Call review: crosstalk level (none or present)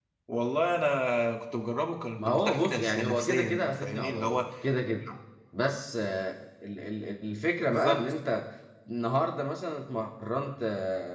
present